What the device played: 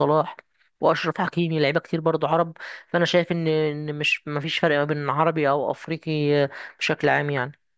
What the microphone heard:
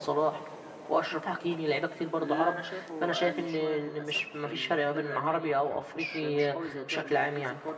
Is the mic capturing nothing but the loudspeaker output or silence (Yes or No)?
No